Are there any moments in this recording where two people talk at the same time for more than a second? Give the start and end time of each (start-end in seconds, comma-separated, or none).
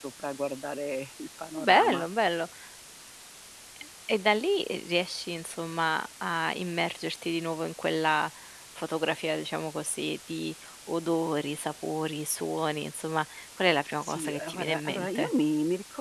14.0-15.3